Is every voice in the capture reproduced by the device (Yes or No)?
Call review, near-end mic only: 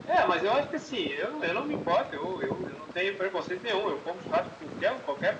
Yes